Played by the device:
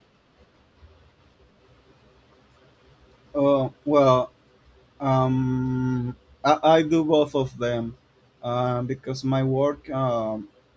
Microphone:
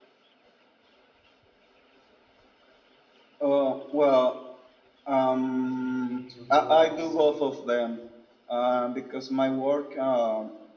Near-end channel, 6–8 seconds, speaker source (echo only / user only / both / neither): both